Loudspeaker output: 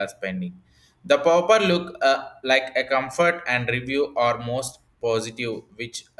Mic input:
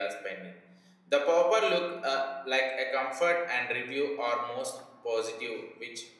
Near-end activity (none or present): none